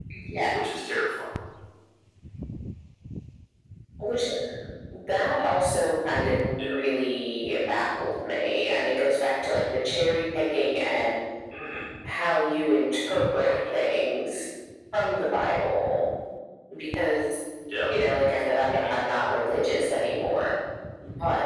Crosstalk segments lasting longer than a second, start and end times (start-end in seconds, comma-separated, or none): none